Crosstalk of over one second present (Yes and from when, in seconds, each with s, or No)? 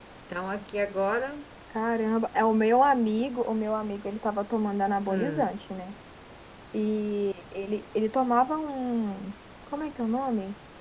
No